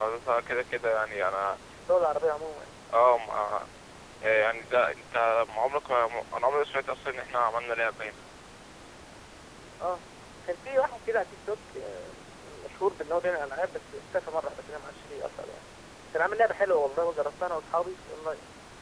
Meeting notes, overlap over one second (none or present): none